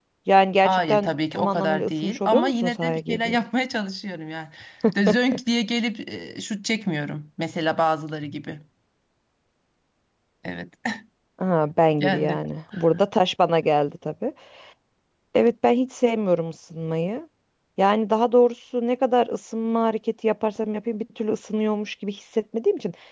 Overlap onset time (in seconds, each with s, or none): 0.7 s